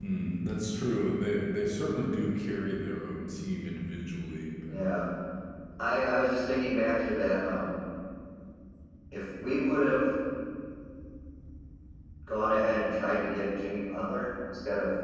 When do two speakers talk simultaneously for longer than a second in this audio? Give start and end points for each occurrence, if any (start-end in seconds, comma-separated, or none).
none